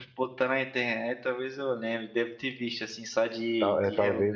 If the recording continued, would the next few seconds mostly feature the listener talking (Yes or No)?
Yes